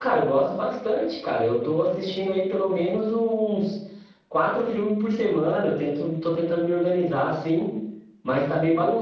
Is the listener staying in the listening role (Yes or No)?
Yes